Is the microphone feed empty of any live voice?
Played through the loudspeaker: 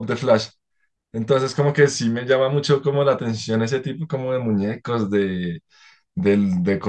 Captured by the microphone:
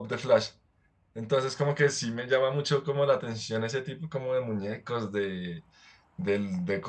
Yes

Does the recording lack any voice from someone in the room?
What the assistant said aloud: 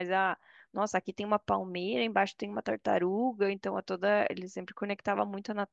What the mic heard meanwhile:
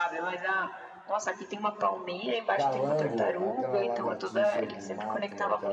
No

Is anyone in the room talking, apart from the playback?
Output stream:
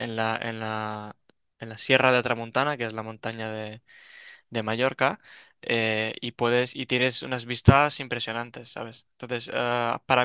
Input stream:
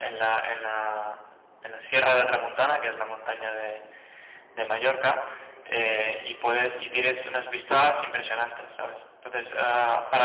No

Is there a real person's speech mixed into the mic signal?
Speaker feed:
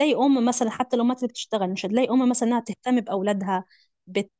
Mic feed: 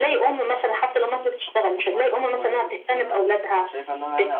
Yes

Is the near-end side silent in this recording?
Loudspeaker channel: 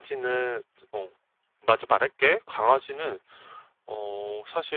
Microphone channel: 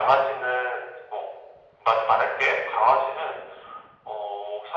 Yes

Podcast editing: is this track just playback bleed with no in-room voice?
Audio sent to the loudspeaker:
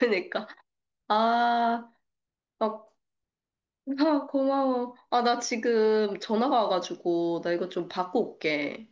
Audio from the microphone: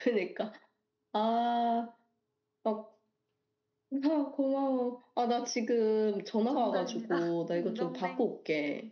No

